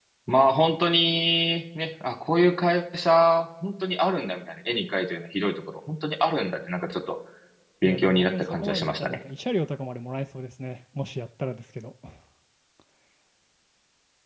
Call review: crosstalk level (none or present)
present